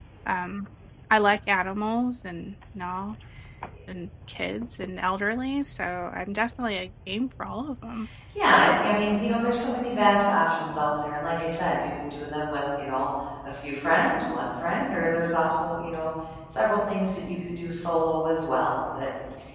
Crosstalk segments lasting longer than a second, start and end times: none

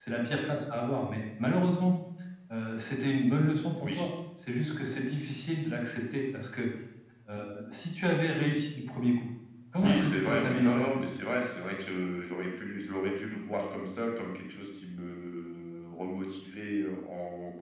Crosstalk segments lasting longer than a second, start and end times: 9.8-11.1

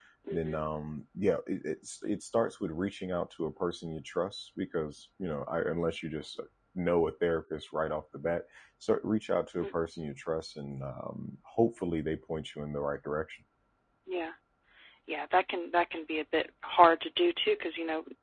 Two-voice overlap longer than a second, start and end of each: none

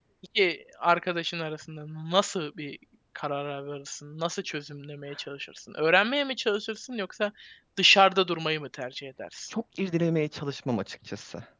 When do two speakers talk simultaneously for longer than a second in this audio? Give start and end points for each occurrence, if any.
none

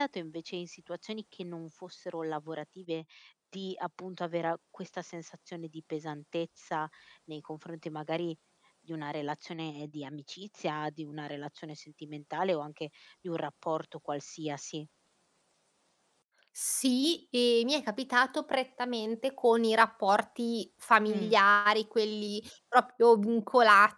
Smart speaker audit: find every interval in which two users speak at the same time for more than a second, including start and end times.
none

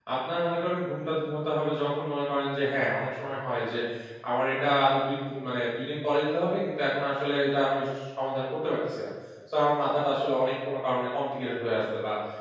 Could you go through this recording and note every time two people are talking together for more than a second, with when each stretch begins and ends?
none

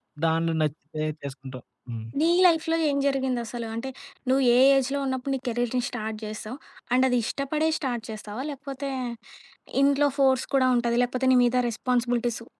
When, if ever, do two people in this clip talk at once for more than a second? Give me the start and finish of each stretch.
none

